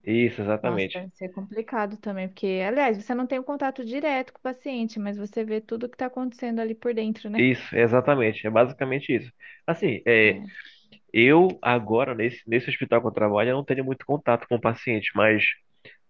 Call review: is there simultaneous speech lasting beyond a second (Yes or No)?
No